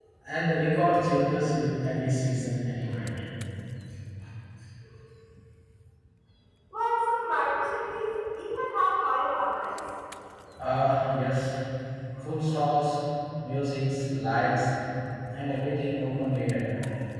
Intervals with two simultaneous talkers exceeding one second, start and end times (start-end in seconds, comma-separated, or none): none